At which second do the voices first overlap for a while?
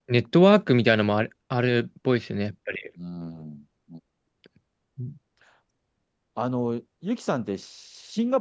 none

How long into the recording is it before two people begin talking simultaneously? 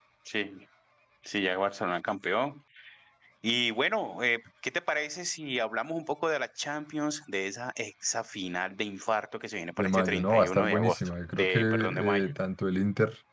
9.8 s

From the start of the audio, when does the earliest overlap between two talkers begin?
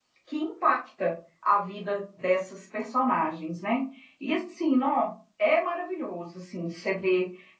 none

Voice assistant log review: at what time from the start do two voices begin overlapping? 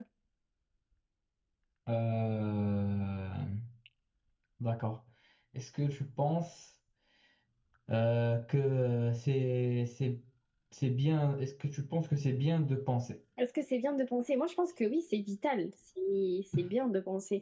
none

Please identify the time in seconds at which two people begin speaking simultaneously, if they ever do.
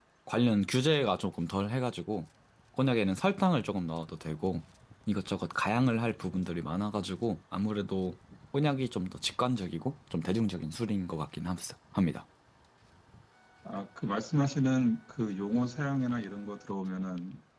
none

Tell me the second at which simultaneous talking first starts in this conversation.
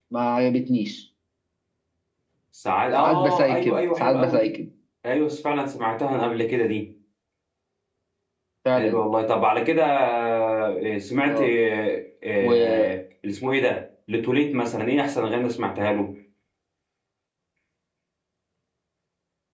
3.0 s

